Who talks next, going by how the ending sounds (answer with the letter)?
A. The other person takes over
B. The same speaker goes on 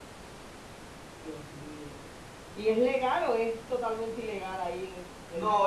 A